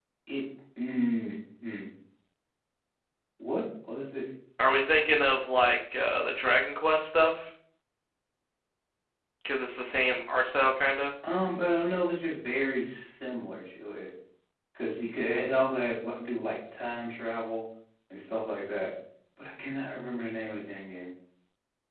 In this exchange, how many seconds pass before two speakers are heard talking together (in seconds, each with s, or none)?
none